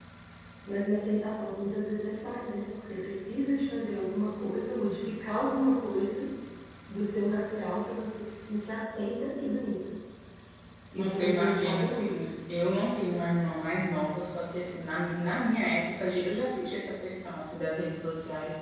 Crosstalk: present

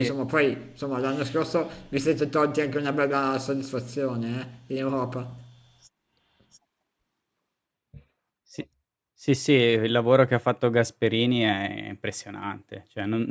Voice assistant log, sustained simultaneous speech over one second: none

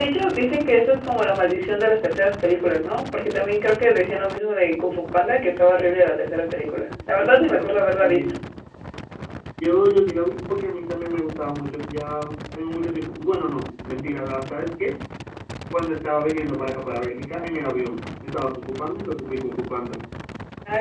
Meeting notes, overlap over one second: none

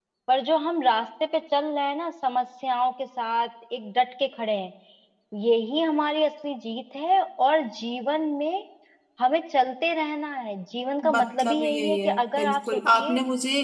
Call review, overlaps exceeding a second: present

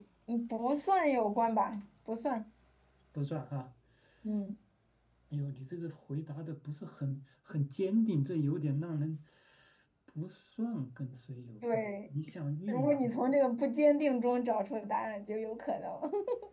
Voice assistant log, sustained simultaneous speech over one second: none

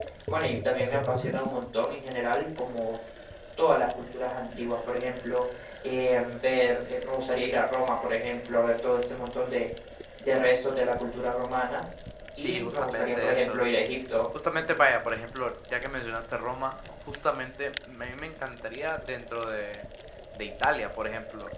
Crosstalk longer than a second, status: present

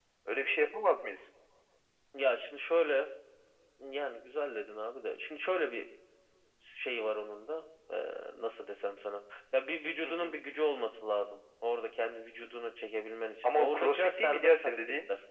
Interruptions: present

